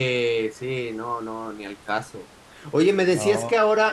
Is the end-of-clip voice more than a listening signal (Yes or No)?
No